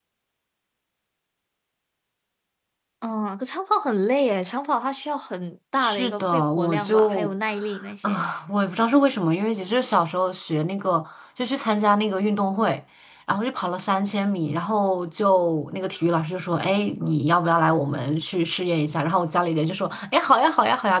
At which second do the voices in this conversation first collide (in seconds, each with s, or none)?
5.8 s